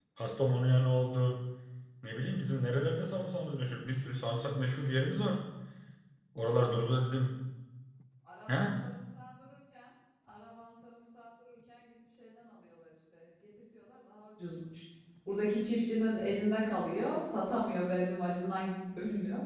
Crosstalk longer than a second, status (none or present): none